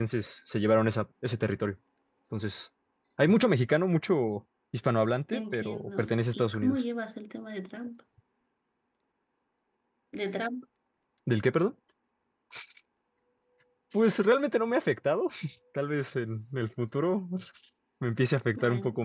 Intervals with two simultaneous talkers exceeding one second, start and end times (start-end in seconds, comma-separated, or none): 5.3-6.8